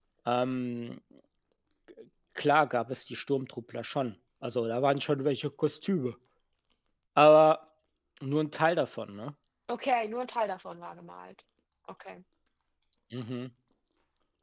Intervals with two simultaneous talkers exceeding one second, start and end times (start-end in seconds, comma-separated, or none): none